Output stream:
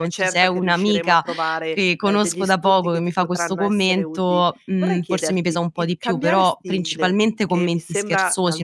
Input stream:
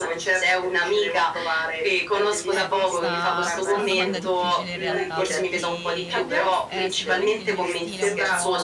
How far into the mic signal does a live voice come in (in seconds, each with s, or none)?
2.5 s